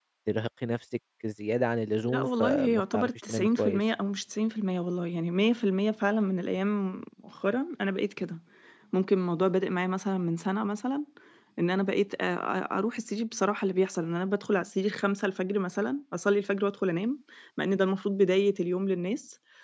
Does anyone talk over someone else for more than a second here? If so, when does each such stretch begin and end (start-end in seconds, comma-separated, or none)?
2.1-3.8